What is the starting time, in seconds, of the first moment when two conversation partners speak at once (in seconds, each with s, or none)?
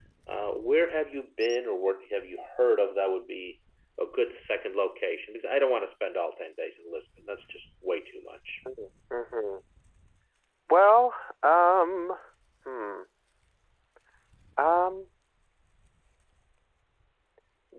none